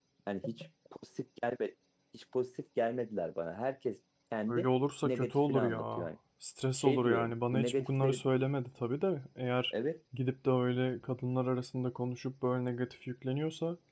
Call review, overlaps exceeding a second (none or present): present